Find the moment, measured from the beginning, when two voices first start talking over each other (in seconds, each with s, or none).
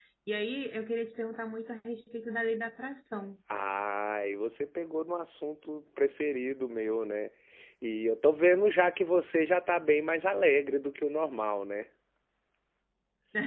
none